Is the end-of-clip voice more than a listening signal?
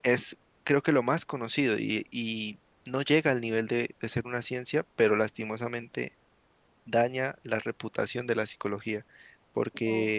No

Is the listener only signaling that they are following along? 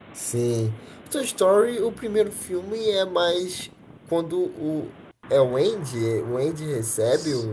Yes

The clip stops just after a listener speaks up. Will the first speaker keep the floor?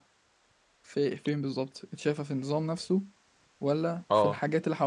Yes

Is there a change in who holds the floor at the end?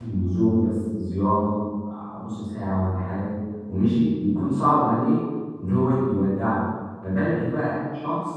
No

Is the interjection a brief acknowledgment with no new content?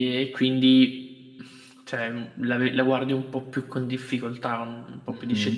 No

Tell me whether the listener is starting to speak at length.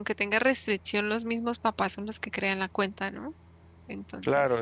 Yes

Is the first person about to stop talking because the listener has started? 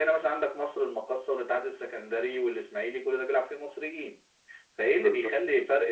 No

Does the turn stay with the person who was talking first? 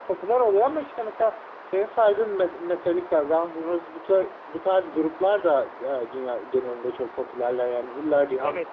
No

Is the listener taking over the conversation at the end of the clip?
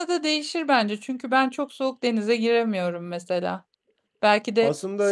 No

